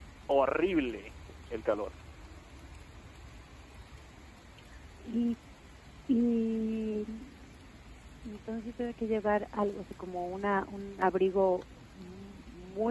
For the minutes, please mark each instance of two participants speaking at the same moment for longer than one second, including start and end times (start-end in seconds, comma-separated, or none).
none